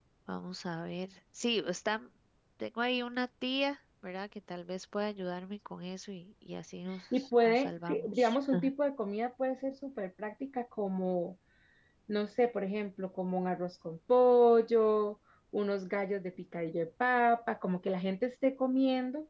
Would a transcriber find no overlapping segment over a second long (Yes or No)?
No